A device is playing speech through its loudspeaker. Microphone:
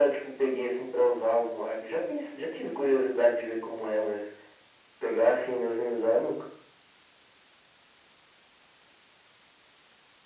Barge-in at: none

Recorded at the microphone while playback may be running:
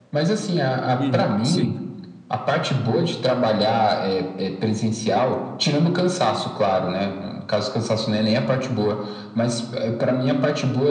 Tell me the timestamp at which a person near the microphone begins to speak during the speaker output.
1.0 s

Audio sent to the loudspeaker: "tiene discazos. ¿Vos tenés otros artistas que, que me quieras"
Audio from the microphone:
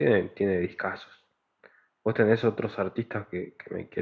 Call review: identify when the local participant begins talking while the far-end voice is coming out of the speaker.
none

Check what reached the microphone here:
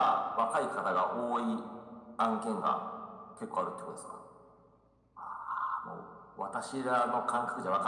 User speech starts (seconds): none

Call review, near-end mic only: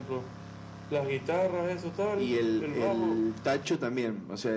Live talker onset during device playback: none

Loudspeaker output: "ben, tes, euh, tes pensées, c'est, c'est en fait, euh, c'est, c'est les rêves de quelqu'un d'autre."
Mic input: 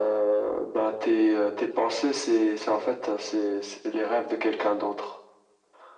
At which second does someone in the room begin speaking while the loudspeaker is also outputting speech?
none

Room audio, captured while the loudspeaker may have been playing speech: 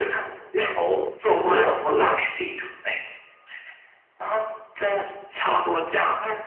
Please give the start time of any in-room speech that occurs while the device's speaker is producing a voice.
0.7 s

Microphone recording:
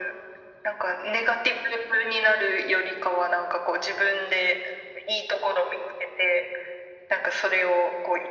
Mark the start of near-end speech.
none

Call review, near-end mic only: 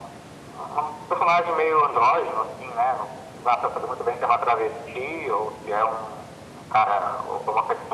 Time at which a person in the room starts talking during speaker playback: none

